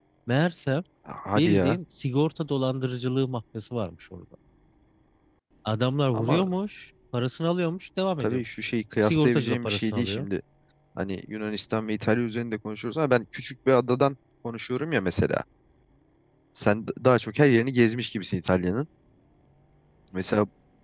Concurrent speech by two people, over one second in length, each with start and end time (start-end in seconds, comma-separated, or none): 9.0-10.3